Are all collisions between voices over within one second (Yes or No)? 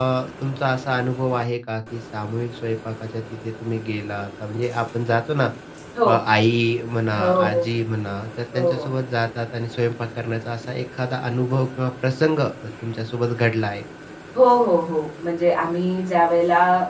Yes